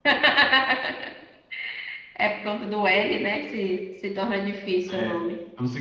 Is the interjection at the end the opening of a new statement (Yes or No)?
Yes